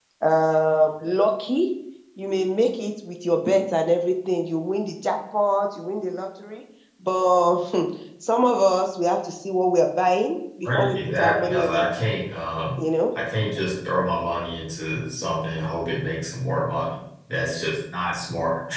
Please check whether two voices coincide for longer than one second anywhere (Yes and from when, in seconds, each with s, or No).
Yes, from 10.6 s